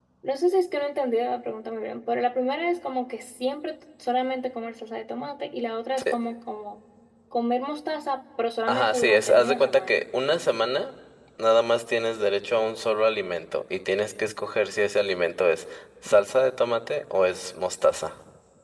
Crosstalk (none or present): present